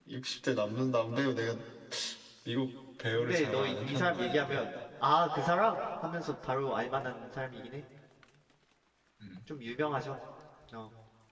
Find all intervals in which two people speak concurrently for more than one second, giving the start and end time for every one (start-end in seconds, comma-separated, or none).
3.1-4.6